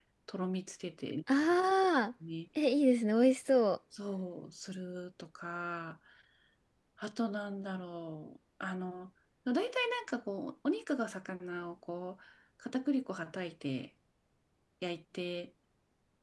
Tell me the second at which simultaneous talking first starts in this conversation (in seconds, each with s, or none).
none